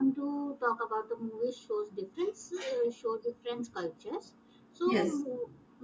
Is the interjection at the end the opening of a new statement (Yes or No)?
No